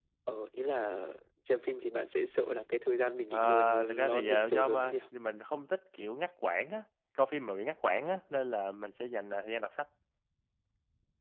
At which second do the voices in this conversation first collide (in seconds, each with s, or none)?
3.3 s